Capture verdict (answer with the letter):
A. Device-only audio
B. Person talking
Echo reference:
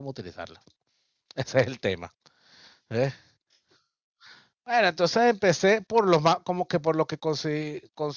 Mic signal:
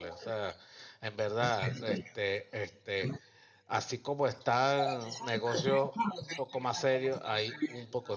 B